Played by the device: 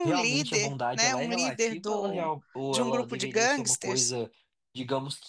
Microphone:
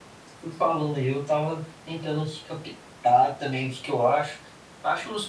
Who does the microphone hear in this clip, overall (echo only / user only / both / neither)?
user only